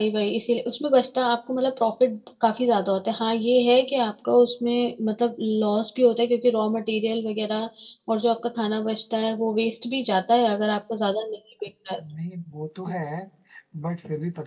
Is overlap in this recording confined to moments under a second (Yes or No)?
Yes